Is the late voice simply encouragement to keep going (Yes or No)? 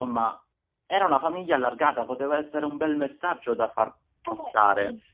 No